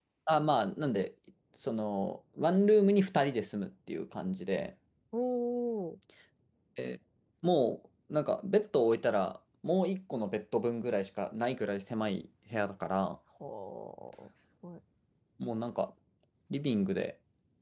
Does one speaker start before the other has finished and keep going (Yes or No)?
No